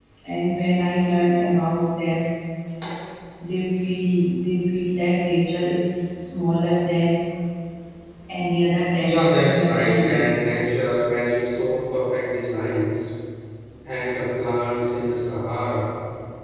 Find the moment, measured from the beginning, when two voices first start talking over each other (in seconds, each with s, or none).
9.0 s